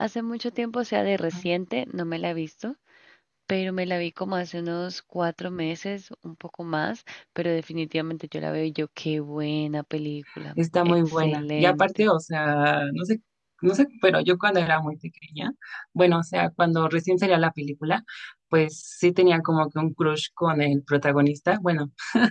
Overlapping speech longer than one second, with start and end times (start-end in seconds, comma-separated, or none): 10.8-12.1